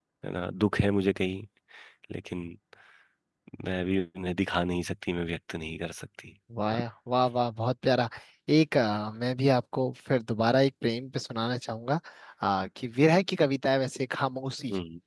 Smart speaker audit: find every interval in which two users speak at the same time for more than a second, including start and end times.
none

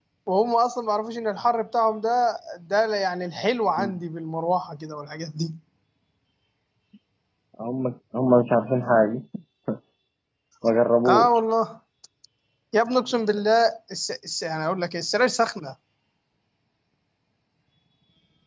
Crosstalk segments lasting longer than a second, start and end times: none

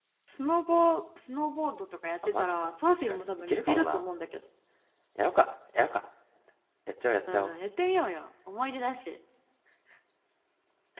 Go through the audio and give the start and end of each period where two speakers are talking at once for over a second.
2.3-4.0

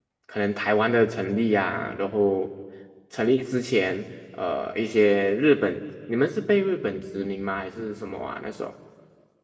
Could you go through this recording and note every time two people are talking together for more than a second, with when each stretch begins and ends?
none

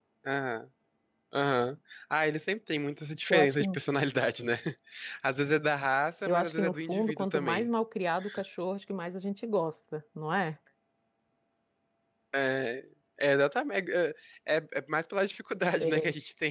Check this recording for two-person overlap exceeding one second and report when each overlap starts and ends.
6.3-7.7

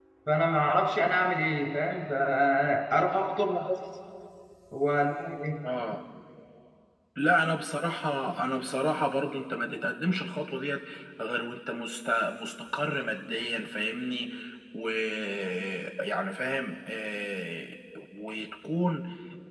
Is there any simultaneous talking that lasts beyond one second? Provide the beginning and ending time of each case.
none

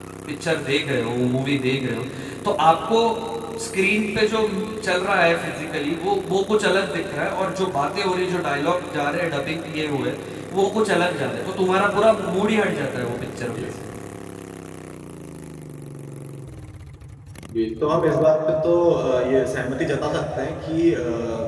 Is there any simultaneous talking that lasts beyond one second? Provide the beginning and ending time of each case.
none

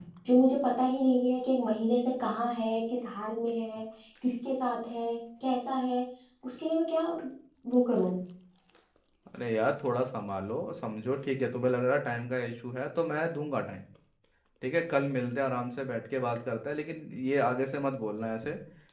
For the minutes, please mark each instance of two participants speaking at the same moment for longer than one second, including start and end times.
none

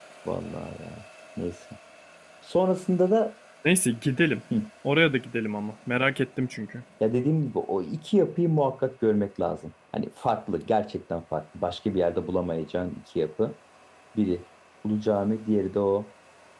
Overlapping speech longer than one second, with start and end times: none

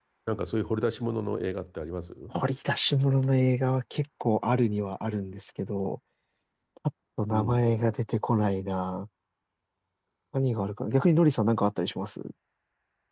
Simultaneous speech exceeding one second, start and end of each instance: none

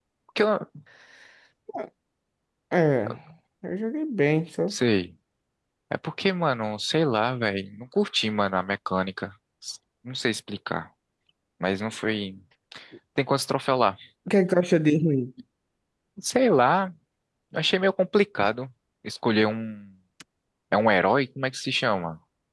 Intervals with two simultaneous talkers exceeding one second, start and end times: none

